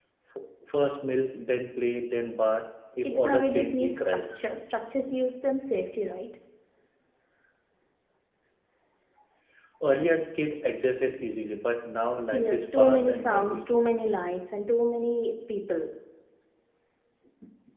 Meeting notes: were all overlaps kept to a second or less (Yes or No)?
No